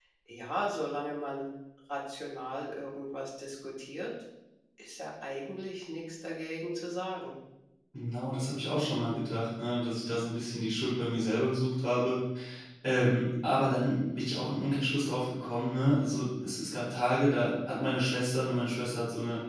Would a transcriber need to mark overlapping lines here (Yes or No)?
No